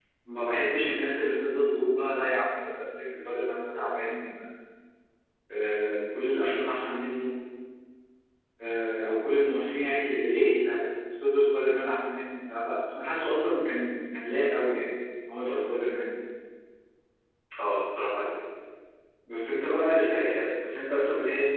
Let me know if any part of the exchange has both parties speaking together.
No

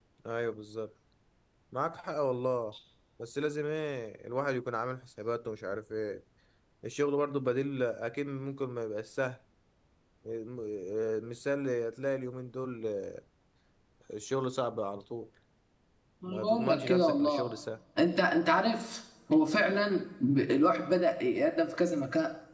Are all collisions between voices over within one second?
No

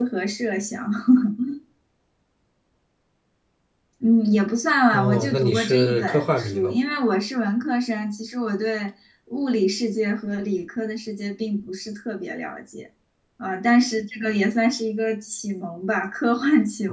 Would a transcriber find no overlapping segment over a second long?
No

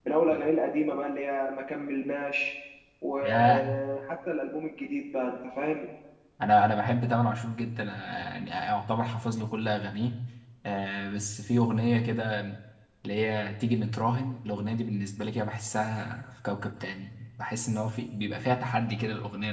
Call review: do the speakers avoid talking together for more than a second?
Yes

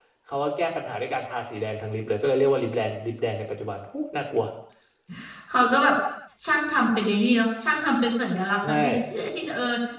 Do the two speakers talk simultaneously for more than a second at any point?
No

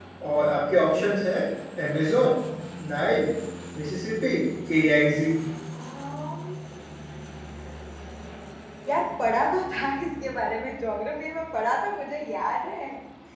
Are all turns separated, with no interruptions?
Yes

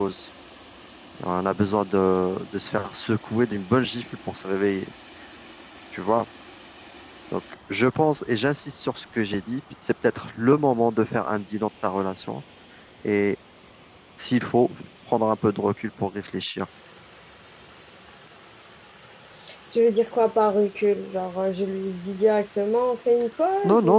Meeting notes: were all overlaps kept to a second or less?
Yes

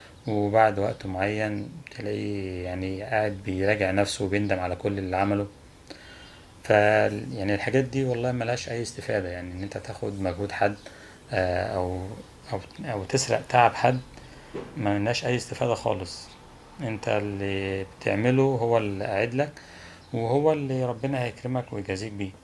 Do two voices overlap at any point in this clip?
No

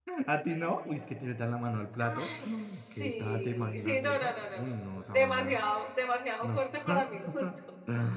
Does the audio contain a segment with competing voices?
Yes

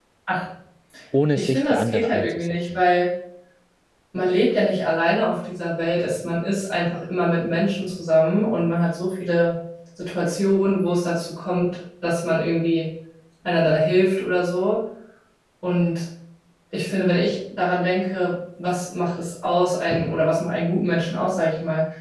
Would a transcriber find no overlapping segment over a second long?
No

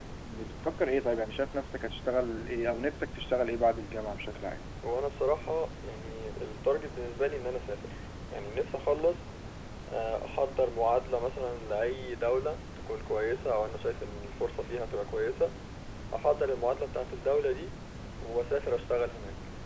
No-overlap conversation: Yes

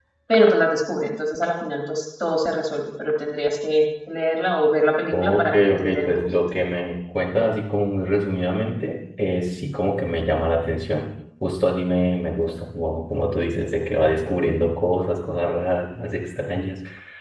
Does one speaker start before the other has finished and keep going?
Yes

